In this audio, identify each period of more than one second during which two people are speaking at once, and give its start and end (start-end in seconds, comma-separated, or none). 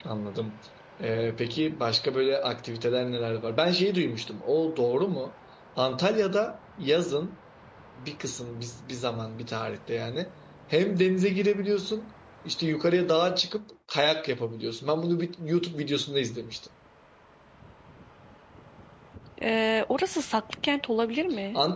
none